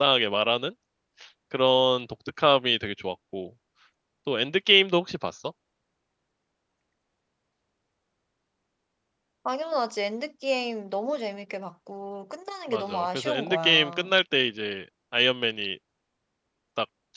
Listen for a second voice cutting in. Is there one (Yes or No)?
Yes